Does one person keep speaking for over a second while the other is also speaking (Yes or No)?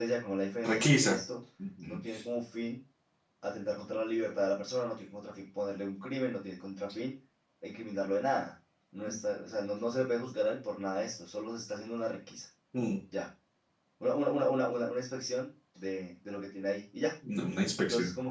No